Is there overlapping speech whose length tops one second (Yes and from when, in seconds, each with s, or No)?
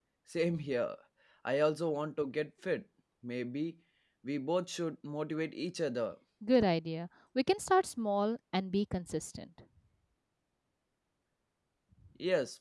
No